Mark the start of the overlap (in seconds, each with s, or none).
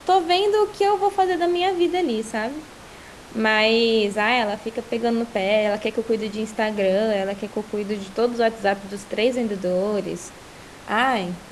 none